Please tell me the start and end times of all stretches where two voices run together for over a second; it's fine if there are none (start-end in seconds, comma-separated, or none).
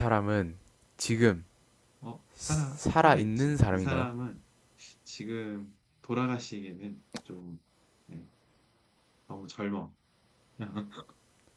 2.5-4.1